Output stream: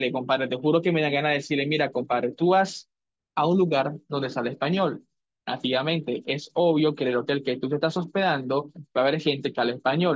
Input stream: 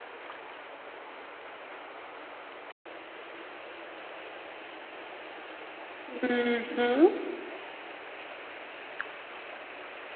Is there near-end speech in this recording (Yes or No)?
Yes